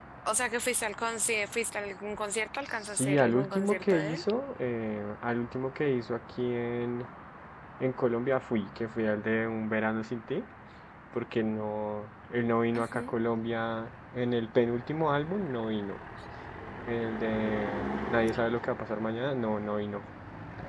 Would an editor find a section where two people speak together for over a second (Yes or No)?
Yes